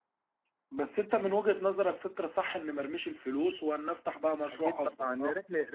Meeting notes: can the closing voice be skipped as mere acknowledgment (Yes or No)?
No